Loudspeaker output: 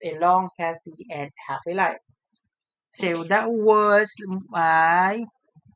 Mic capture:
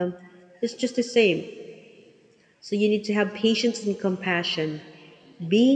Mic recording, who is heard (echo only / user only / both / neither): user only